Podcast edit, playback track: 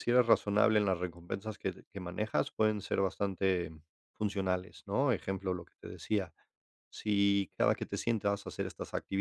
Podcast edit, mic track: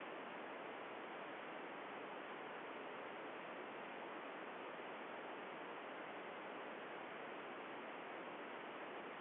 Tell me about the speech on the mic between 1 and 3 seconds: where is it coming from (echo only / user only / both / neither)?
neither